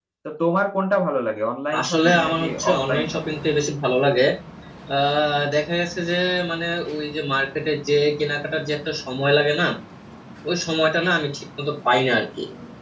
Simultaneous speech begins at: 1.7 s

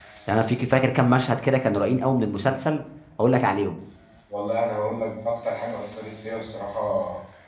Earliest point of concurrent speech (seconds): none

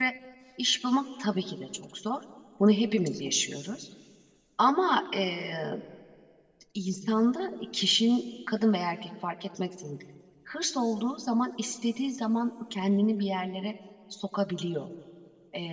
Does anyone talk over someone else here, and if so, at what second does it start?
none

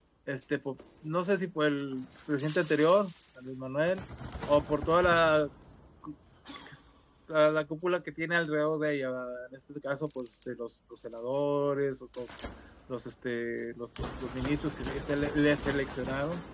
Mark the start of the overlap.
none

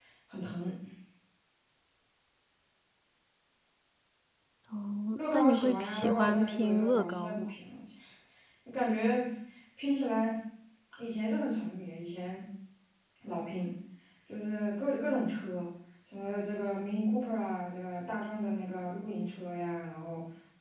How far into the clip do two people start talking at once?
5.2 s

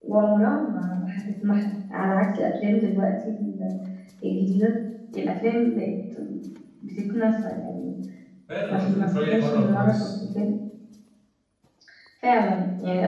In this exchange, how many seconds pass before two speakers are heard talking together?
8.7 s

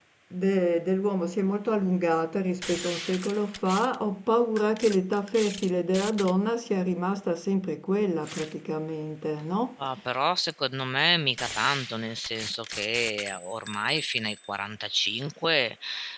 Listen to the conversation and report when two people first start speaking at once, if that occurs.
none

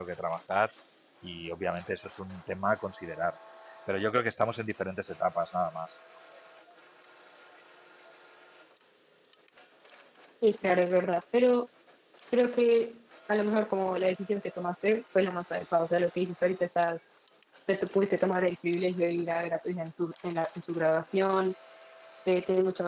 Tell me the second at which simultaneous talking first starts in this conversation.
none

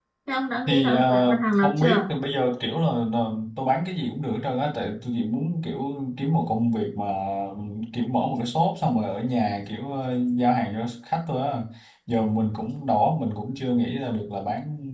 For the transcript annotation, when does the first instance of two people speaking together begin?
0.7 s

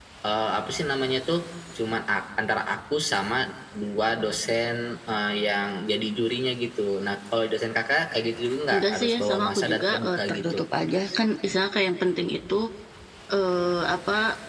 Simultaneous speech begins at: 8.7 s

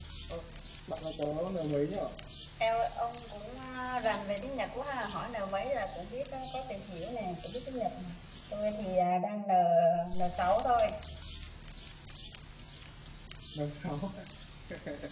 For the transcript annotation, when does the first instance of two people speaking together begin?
none

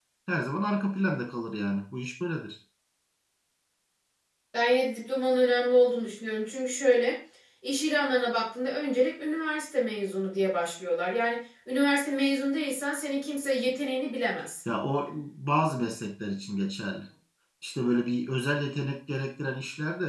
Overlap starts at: none

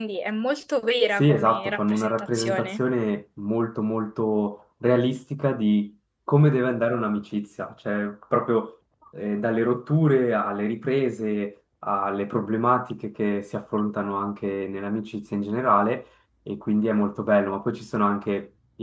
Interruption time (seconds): 1.2 s

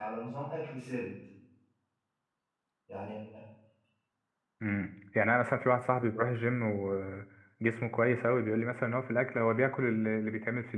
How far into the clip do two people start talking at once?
none

